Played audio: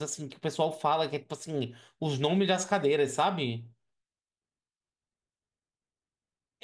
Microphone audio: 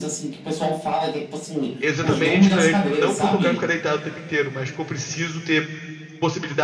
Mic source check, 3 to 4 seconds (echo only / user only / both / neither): both